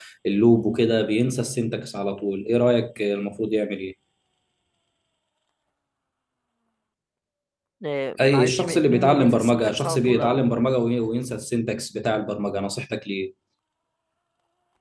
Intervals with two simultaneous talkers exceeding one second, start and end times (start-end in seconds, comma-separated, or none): 8.2-10.6